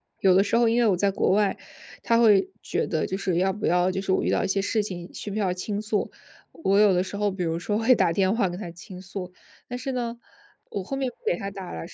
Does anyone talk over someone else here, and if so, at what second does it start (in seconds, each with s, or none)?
none